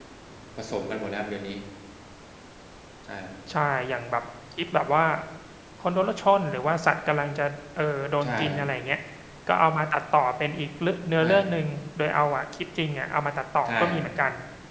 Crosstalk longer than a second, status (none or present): none